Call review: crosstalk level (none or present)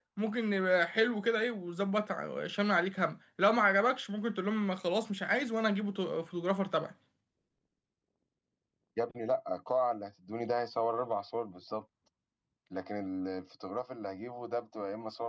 none